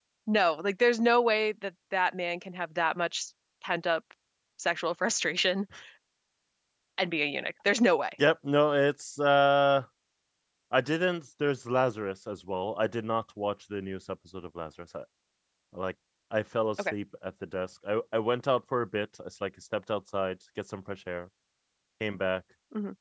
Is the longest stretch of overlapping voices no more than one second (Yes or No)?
Yes